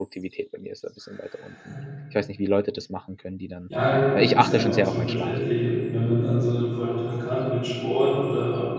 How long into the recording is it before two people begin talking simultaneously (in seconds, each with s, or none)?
4.2 s